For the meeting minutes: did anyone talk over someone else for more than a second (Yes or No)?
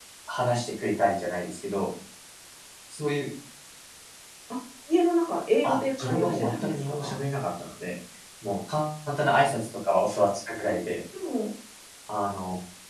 Yes